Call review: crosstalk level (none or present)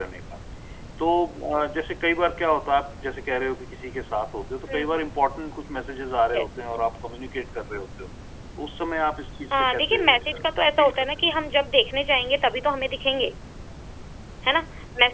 present